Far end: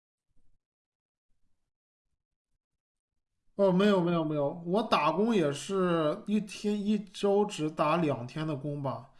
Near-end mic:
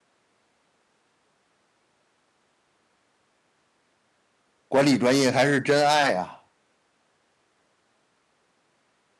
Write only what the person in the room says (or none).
管理专业还是真爱啊。